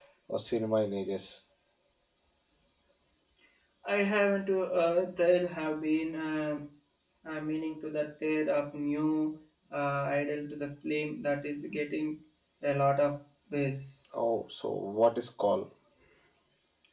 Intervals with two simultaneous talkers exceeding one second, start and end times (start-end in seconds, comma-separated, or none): none